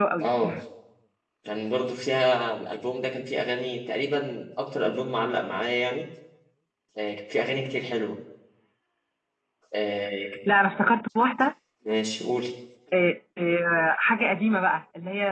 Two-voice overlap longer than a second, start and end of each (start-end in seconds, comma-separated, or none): none